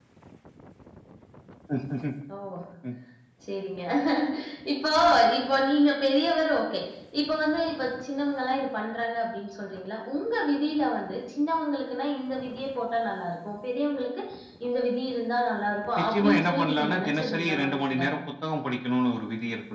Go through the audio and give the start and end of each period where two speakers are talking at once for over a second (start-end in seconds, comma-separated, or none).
16.0-18.0